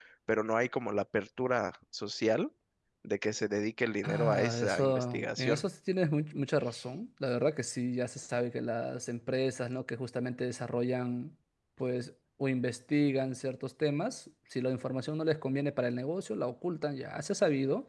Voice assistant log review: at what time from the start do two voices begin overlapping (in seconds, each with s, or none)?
4.0 s